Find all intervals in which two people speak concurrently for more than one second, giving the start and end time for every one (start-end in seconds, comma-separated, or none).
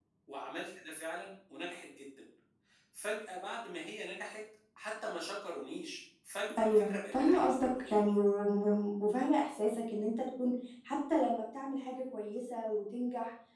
6.6-7.9